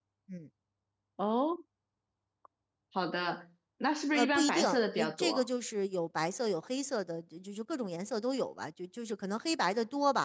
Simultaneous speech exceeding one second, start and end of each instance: 4.2-5.5

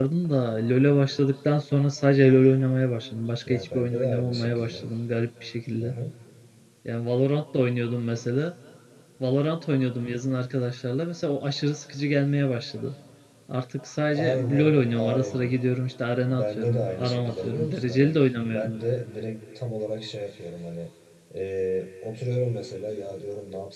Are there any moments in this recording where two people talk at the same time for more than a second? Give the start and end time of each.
3.5-4.9, 14.1-15.5, 16.2-18.7

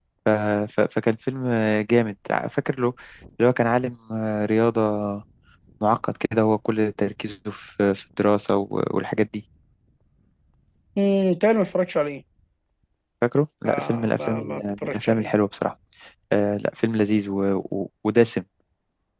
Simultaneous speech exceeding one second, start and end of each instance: 13.7-15.3

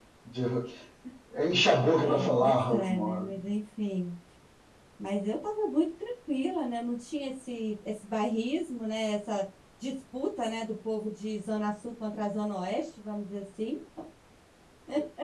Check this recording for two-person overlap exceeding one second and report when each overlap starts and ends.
1.8-3.3

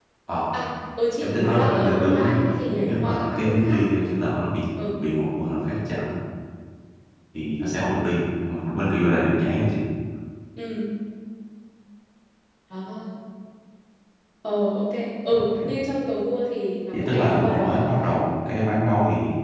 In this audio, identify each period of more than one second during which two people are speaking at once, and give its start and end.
1.2-3.8, 16.9-18.2

